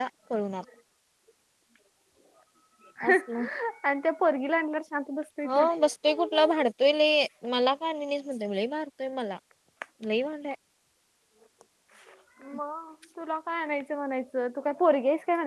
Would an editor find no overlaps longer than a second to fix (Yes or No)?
Yes